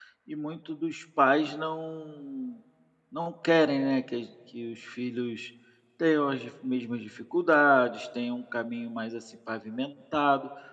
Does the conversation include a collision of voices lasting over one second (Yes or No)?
No